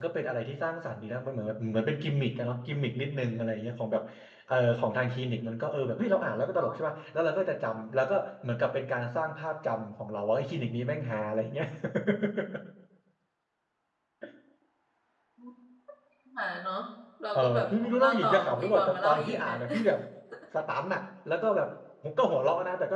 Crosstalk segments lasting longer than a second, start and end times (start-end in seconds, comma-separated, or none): 17.4-19.6